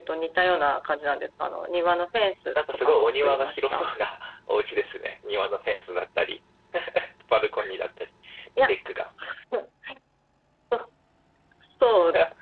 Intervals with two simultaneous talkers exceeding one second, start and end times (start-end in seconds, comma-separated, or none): 2.5-3.9